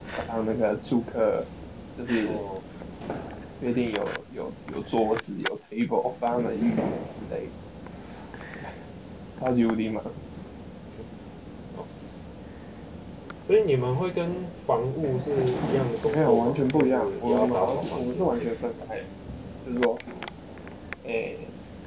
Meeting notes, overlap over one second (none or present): present